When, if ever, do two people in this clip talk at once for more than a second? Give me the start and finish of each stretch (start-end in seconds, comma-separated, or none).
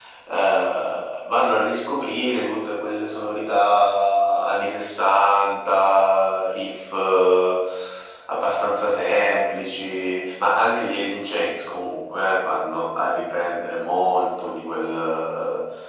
none